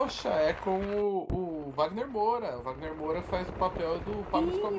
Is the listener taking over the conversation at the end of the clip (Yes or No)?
Yes